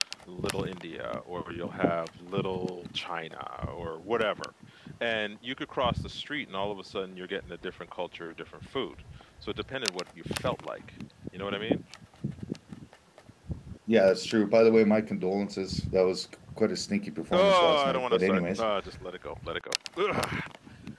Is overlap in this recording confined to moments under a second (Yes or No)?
No